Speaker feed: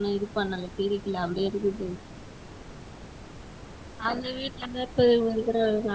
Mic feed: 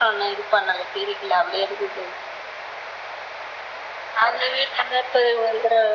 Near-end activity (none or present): none